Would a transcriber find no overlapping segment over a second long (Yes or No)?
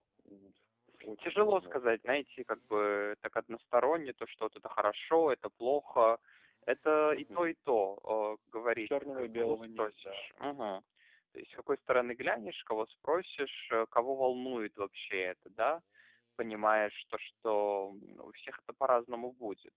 No